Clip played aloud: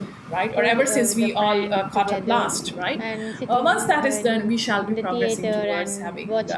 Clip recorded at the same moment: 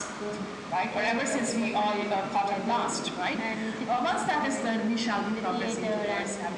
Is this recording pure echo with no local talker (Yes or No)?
Yes